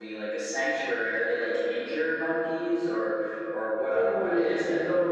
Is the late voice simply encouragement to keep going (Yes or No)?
No